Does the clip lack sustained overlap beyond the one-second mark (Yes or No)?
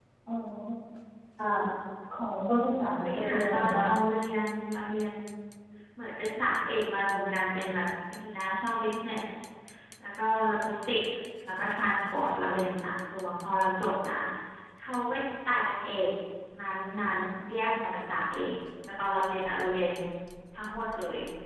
No